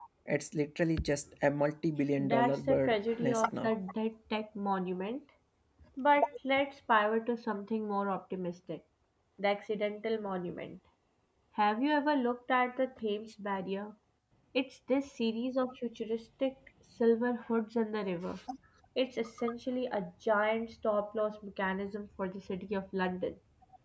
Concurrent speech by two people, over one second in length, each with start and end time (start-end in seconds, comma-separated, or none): 2.2-3.7